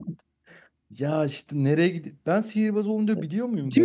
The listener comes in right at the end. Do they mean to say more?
Yes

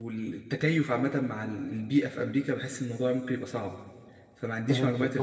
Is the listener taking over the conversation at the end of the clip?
Yes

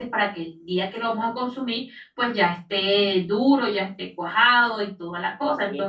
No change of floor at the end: No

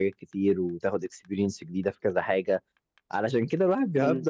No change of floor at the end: Yes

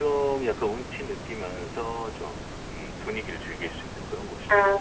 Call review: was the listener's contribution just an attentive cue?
No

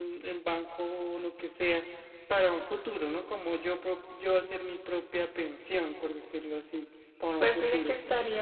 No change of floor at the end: No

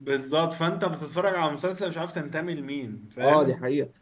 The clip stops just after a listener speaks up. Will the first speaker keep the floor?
No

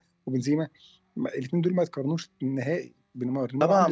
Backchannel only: No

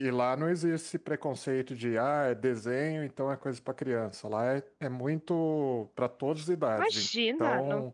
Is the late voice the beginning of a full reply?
Yes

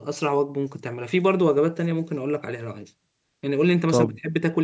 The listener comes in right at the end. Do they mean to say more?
No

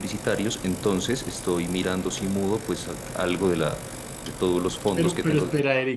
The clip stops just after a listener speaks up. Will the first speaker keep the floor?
No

